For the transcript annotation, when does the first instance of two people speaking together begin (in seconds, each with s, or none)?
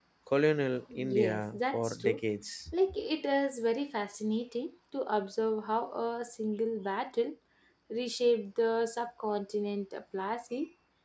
1.0 s